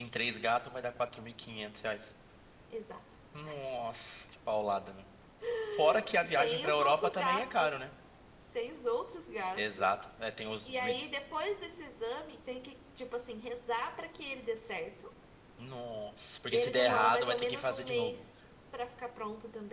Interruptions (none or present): present